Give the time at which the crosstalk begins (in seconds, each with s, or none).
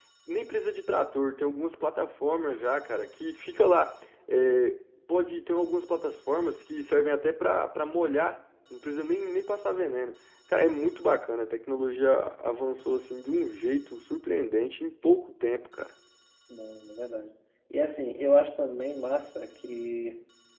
none